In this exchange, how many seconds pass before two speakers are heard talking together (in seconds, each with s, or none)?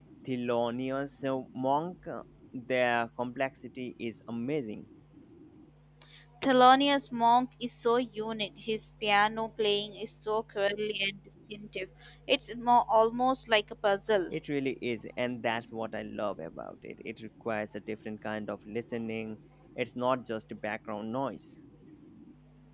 none